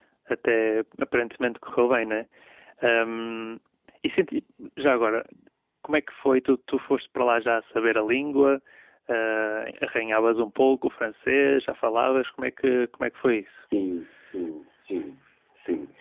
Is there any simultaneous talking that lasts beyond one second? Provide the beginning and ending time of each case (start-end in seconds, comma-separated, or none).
none